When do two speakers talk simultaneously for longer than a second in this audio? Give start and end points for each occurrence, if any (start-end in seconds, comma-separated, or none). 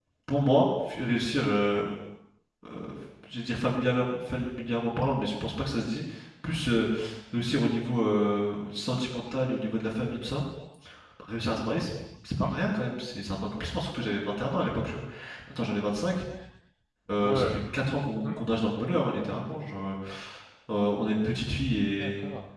none